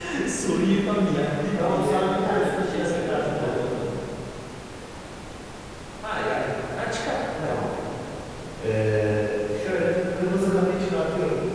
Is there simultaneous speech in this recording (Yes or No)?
Yes